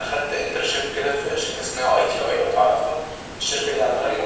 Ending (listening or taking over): listening